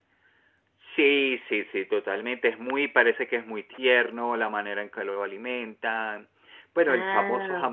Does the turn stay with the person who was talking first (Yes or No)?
Yes